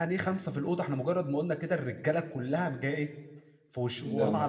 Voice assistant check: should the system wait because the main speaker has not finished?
Yes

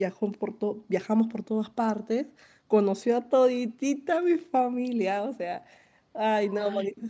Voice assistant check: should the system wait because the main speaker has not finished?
No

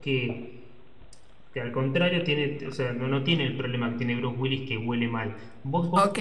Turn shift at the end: Yes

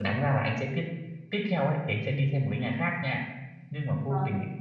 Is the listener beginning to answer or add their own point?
No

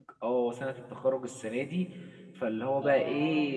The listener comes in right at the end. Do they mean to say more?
No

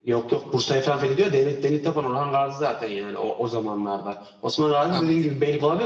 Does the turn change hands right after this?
No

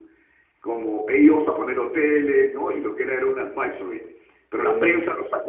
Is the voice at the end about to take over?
No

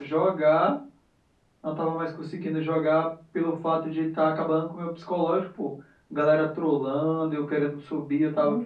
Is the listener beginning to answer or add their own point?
Yes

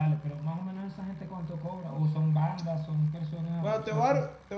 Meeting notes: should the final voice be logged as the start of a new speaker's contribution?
Yes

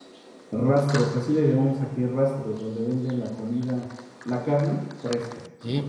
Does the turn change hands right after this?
Yes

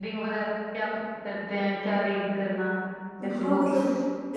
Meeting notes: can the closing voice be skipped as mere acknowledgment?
No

